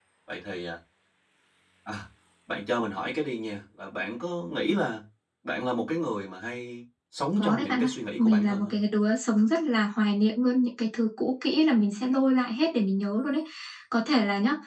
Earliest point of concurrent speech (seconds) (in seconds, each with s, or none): 7.4 s